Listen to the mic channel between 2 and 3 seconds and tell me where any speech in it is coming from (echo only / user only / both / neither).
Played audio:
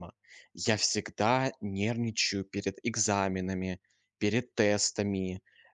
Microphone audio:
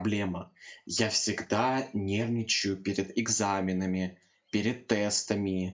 echo only